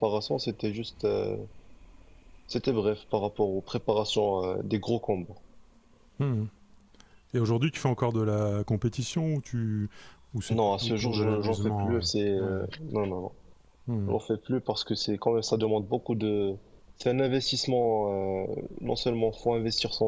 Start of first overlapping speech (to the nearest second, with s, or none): 11 s